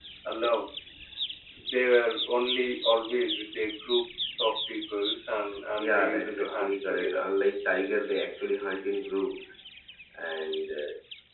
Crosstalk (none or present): present